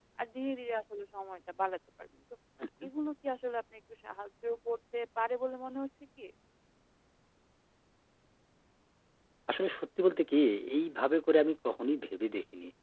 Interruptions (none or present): none